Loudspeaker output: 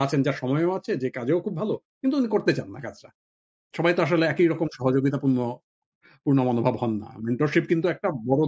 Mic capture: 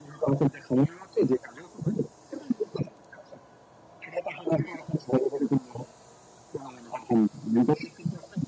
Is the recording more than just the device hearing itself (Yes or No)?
No